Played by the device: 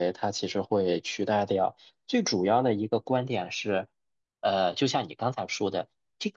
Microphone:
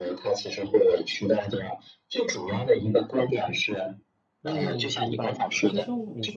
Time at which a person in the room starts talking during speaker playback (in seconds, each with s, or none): 4.4 s